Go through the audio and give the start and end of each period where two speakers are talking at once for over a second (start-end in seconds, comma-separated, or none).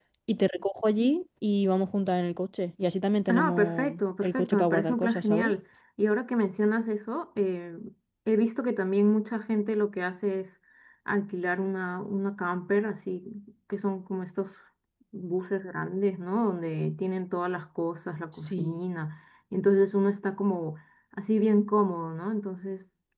3.3-5.5